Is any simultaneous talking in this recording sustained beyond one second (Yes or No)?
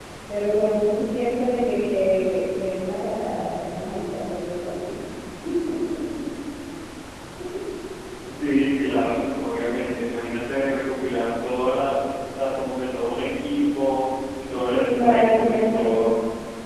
Yes